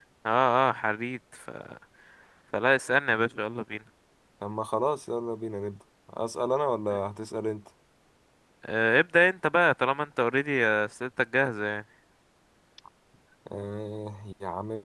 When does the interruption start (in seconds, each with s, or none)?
none